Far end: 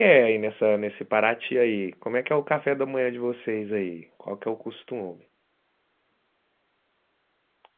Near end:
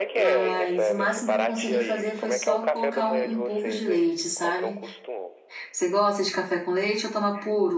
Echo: present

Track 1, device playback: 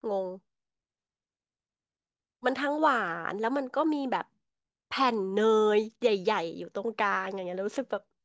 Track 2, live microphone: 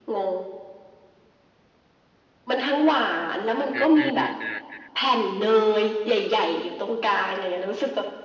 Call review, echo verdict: present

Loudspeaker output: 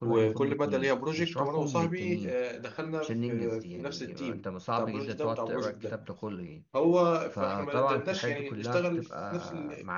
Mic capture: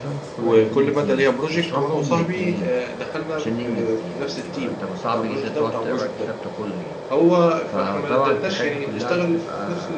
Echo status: present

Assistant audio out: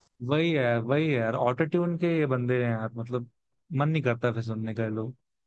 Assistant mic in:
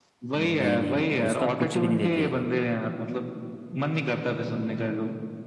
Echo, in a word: present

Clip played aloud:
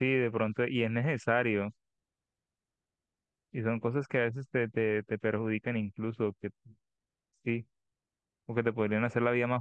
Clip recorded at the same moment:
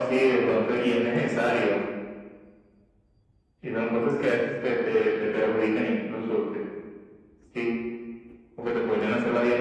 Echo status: present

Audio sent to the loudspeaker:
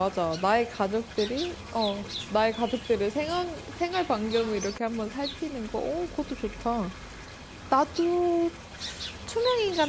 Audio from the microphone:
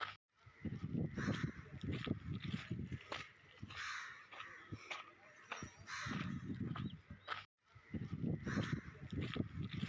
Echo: none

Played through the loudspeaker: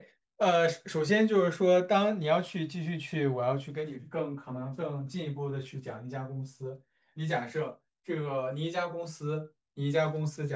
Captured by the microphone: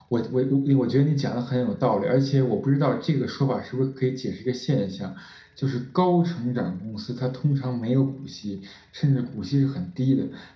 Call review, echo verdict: none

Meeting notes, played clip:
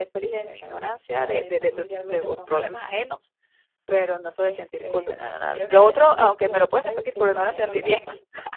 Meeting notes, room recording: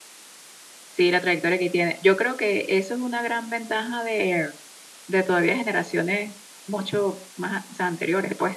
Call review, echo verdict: none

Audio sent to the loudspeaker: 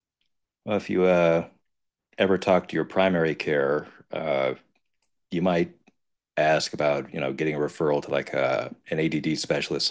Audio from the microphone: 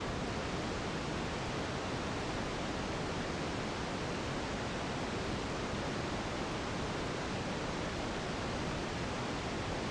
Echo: none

